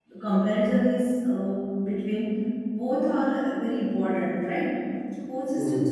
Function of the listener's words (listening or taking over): listening